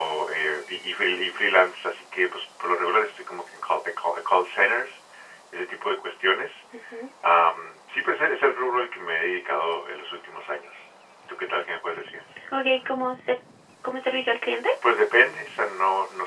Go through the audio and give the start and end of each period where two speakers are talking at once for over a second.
none

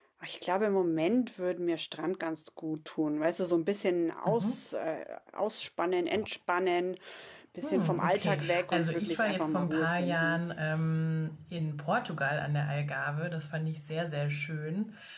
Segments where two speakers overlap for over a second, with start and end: 7.6-10.4

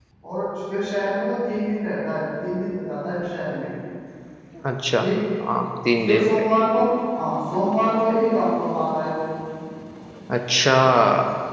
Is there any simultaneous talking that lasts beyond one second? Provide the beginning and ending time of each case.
none

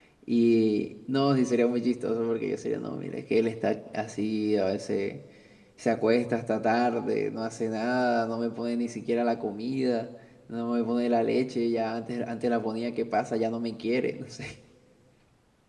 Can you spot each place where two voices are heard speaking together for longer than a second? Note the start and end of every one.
none

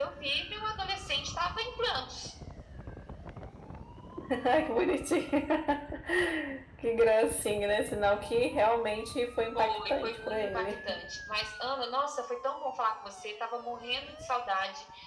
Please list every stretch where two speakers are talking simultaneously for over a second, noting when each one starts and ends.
9.6-11.0

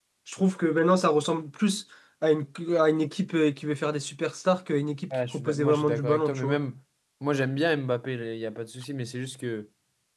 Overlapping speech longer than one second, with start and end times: 5.1-6.6

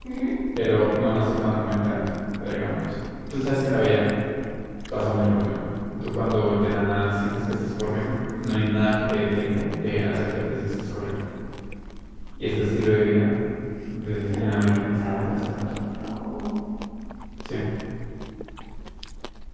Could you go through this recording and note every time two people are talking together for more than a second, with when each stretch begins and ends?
14.3-15.7

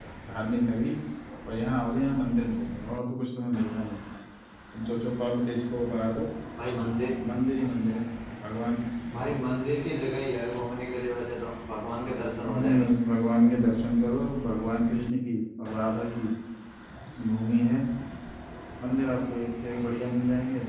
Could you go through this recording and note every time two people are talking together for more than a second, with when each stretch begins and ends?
none

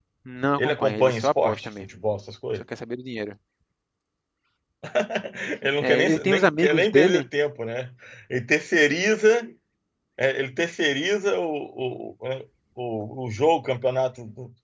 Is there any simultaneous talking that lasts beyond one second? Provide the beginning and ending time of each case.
0.6-1.9, 5.8-7.2

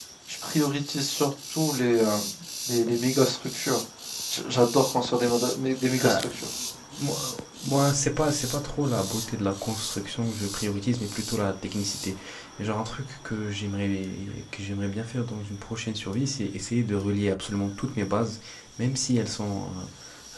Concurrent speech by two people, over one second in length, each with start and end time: none

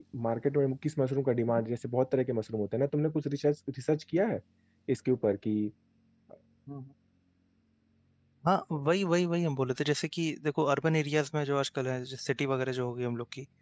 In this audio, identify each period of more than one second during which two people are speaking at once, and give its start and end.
none

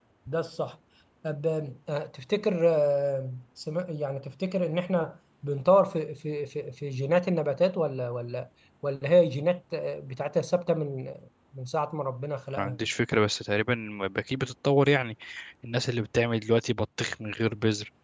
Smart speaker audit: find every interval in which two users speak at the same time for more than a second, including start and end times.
none

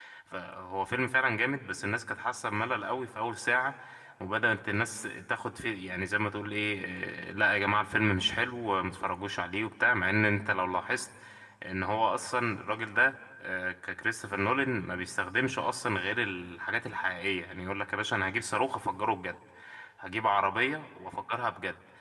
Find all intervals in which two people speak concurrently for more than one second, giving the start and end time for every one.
none

